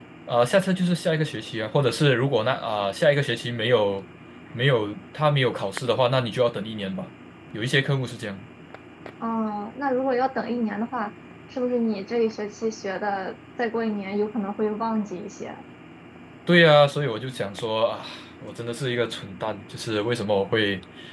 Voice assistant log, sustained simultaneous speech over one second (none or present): none